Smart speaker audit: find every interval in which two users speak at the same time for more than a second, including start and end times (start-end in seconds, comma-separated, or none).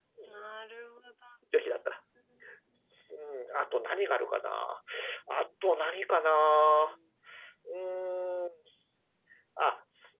none